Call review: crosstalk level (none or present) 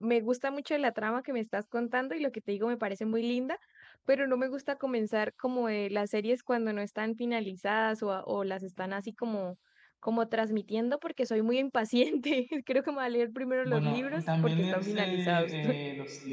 present